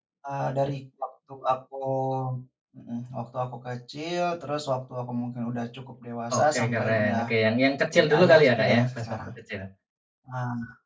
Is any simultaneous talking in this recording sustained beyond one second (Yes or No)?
Yes